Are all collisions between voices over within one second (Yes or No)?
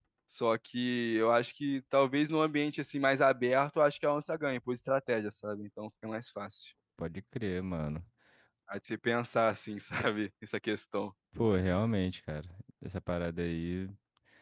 Yes